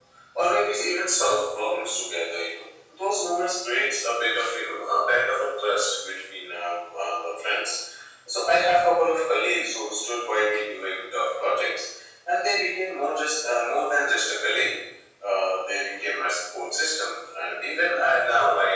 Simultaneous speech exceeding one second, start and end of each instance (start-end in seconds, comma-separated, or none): none